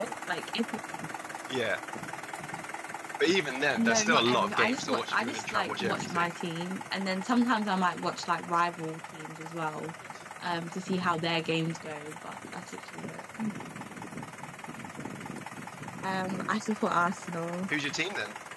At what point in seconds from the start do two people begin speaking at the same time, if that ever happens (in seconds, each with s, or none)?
3.8 s